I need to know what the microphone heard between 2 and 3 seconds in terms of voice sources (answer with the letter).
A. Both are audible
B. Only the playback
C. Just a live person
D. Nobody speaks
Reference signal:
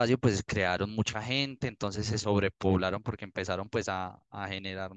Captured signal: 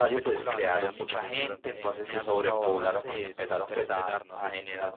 A